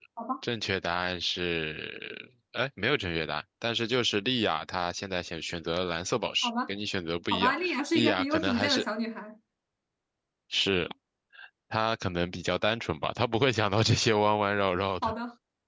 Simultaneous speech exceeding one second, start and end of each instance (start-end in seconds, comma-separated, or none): 7.3-8.8